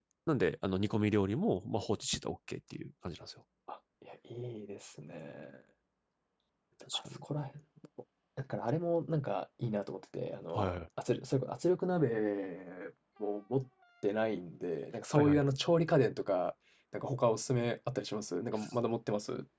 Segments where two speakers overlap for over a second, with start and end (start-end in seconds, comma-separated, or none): none